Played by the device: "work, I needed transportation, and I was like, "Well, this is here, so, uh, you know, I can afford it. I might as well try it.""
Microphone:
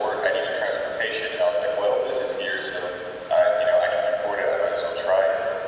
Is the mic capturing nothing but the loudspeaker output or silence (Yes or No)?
Yes